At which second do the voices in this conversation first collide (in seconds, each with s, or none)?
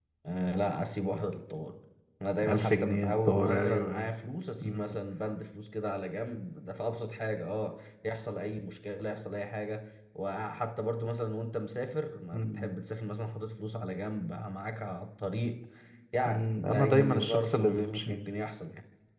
2.5 s